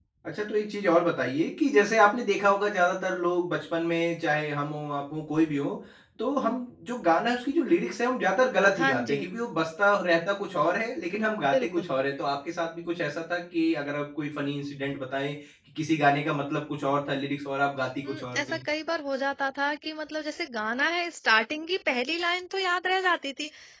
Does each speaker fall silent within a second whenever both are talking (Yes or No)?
Yes